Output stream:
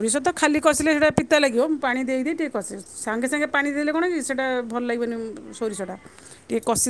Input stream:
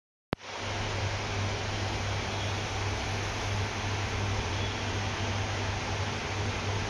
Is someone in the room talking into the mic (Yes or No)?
No